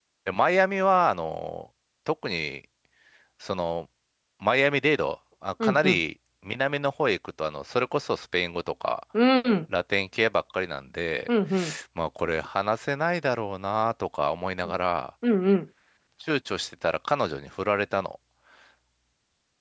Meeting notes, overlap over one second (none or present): none